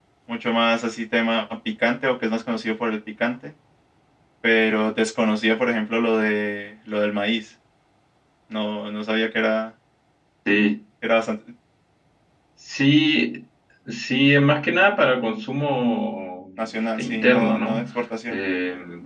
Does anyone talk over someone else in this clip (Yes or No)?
Yes